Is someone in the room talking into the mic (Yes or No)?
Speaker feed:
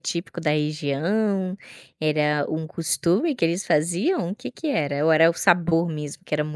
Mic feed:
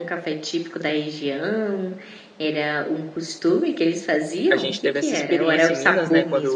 Yes